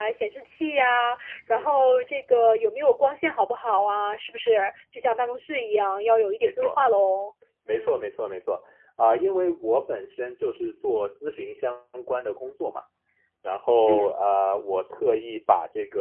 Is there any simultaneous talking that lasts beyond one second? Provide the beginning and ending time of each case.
none

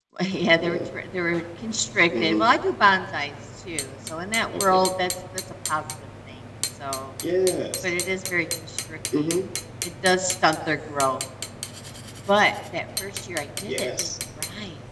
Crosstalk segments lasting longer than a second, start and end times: none

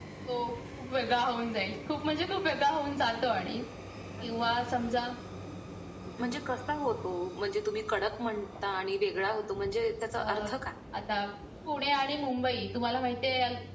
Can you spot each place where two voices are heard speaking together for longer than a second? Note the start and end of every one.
none

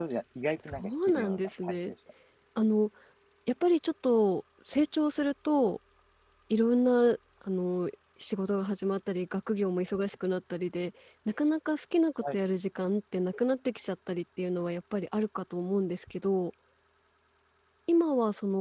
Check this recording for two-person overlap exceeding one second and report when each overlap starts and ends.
0.7-1.9

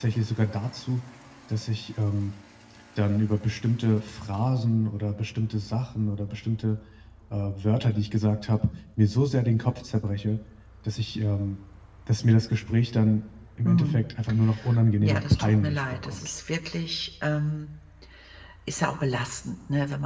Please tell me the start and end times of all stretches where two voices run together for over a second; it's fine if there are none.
15.0-16.3

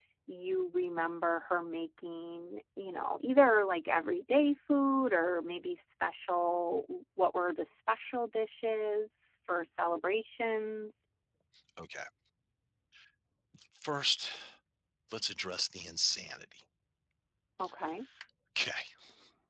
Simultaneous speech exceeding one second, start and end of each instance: none

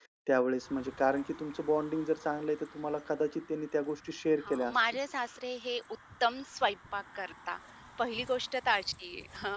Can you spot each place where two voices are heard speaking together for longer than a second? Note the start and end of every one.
none

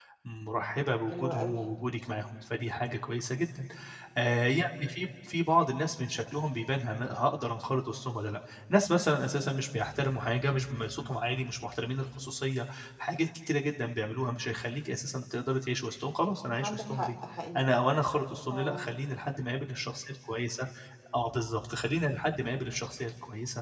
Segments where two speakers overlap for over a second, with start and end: none

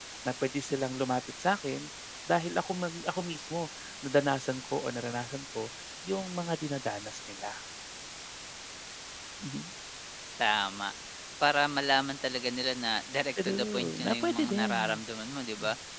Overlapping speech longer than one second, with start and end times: 13.4-15.0

